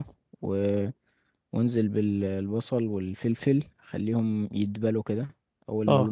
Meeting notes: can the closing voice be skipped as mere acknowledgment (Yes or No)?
Yes